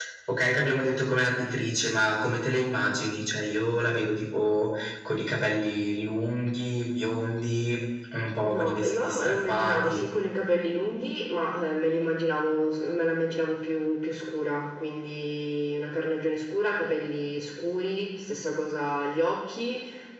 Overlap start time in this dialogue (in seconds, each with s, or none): 8.4 s